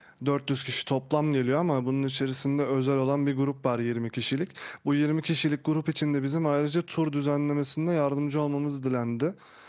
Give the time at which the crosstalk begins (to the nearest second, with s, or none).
none